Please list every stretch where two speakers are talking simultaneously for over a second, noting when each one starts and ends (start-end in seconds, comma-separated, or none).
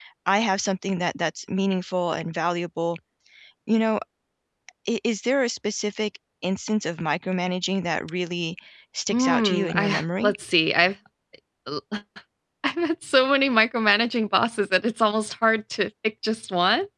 9.1-10.3